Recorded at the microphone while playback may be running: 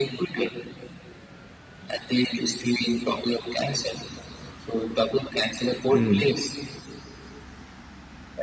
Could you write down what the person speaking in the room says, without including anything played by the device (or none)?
Hmm.